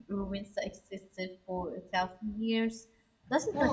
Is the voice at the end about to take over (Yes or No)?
Yes